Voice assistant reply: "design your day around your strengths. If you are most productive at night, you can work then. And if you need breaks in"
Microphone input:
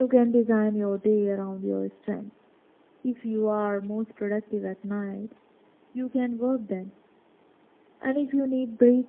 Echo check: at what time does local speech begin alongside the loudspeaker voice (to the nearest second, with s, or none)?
none